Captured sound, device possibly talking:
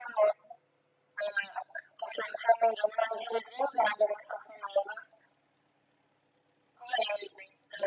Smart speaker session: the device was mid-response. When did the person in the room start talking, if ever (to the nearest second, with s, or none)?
none